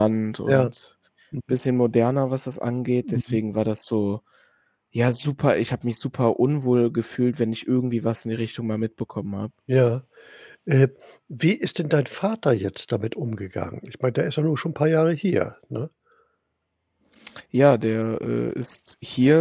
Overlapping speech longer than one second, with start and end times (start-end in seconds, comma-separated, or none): none